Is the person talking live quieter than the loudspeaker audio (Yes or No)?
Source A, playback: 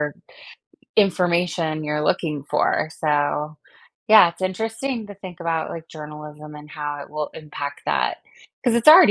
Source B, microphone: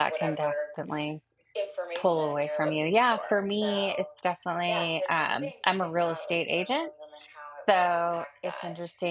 No